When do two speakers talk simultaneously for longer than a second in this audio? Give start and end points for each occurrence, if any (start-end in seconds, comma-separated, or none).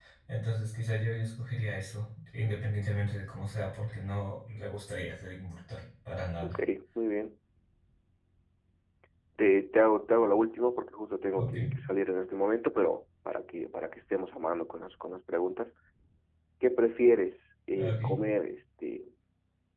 none